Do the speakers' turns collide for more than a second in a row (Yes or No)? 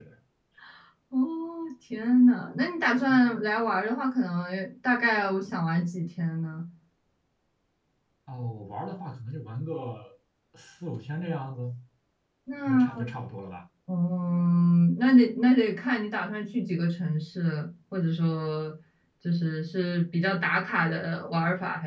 No